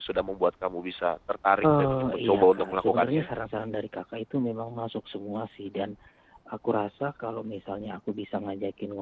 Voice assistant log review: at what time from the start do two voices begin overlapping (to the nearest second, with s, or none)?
2 s